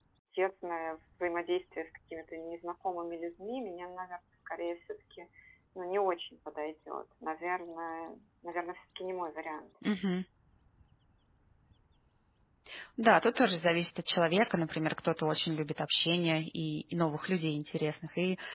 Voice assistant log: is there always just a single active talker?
Yes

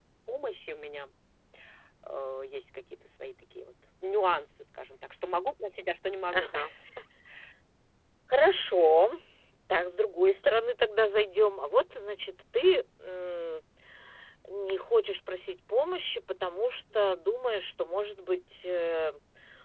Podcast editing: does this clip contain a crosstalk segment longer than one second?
No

